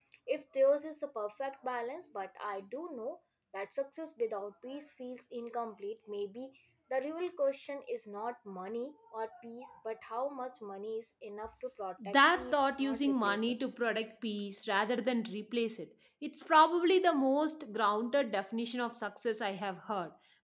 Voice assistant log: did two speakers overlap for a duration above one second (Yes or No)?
Yes